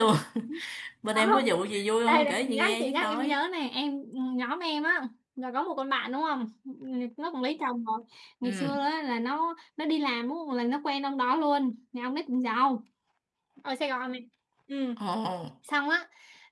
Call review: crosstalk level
present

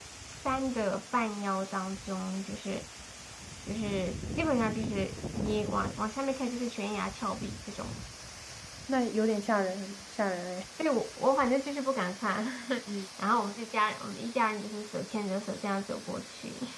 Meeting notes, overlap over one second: none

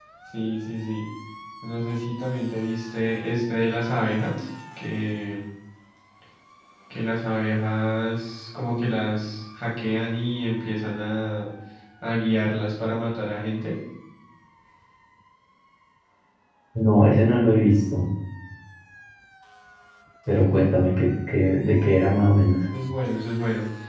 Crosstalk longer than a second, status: none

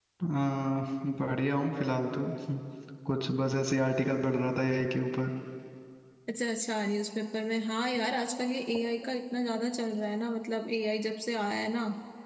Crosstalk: none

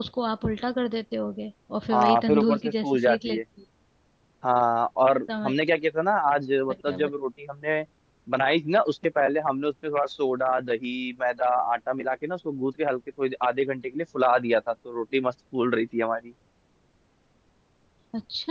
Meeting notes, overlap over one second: present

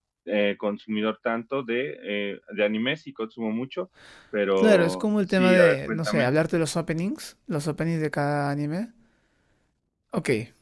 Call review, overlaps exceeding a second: present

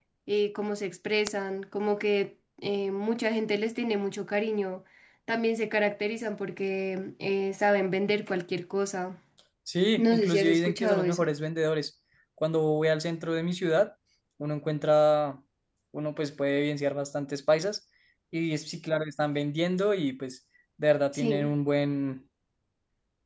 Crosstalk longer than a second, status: present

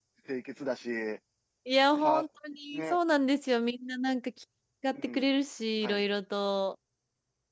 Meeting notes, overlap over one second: none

